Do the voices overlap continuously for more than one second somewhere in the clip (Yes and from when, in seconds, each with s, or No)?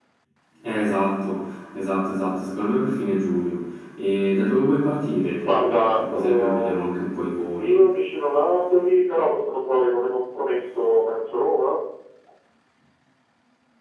Yes, from 5.4 s